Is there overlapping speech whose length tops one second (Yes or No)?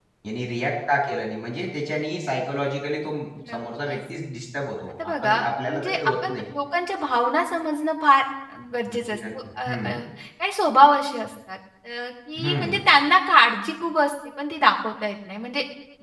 Yes